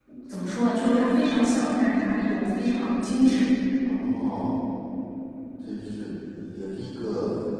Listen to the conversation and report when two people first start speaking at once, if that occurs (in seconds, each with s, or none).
none